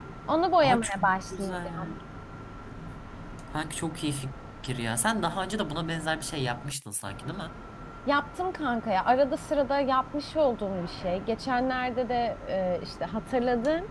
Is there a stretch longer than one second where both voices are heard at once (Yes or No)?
Yes